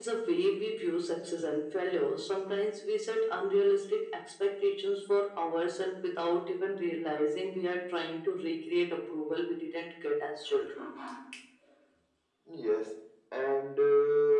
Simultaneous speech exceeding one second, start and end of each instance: none

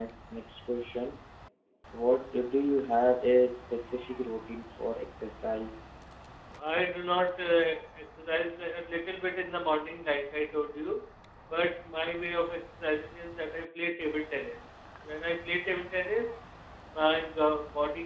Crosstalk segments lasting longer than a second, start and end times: none

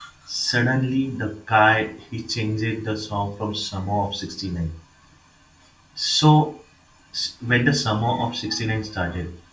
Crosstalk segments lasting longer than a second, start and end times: none

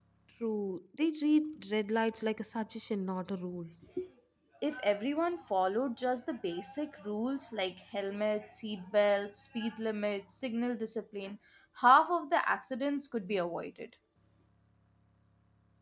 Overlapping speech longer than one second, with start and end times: none

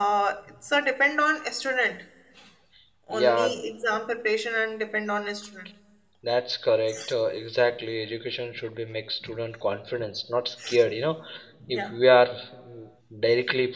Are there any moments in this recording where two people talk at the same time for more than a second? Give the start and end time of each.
none

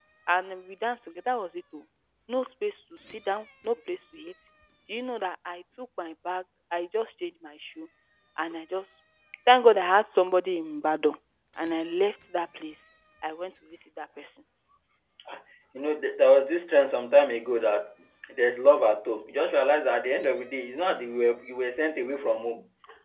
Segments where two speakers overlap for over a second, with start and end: none

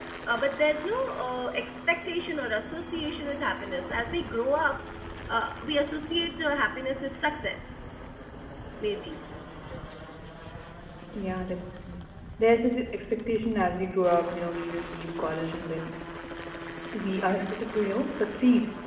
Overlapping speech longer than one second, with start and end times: none

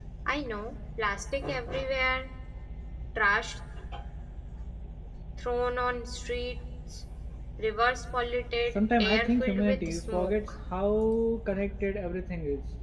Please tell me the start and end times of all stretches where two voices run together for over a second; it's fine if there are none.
8.8-10.3

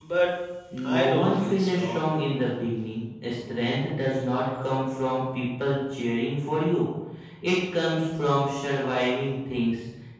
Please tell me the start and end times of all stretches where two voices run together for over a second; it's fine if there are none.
0.8-2.1

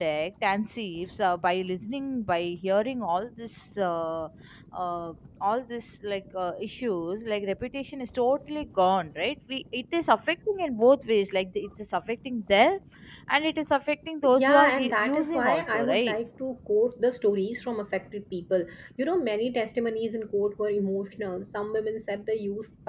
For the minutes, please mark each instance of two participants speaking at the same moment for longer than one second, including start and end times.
14.3-16.2

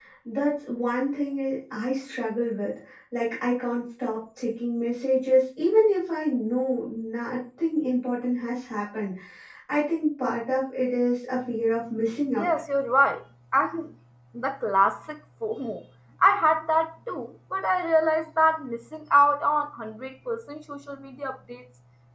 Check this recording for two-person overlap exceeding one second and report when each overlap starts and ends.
none

